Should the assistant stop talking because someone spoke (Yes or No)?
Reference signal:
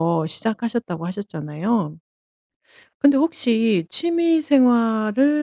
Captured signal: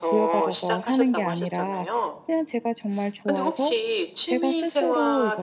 Yes